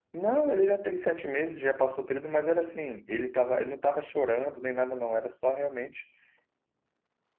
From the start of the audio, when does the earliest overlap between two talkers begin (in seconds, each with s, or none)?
none